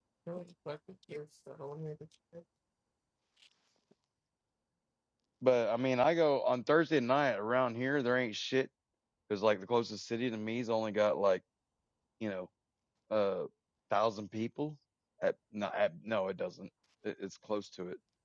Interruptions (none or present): none